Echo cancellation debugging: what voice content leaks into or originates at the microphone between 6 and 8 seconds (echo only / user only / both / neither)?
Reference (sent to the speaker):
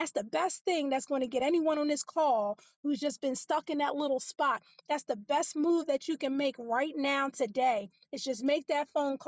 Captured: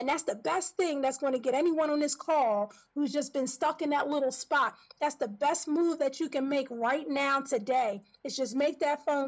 echo only